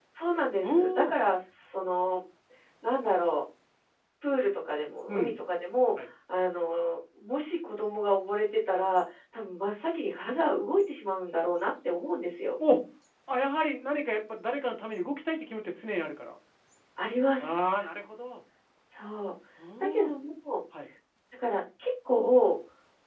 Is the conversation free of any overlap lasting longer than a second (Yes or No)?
Yes